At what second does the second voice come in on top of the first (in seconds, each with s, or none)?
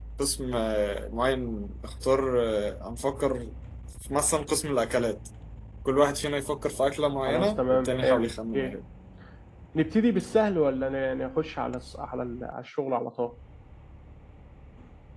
7.3 s